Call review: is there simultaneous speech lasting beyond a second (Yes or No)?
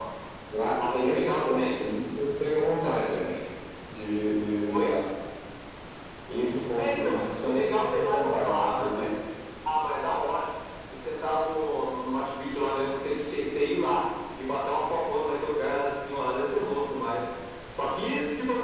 Yes